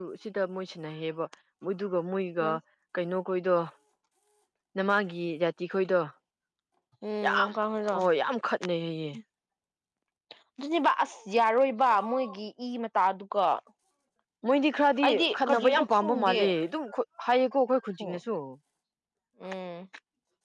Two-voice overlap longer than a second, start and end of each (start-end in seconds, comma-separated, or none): 15.0-16.4